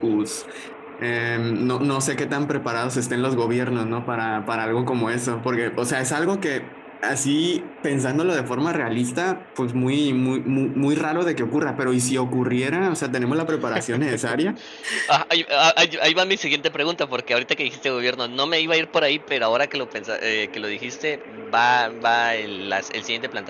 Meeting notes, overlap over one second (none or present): none